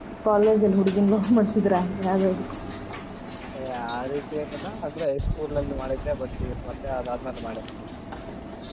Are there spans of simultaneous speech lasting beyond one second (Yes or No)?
No